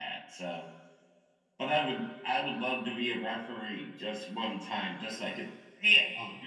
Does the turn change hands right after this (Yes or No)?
Yes